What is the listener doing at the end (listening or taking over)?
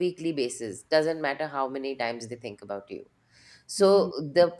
listening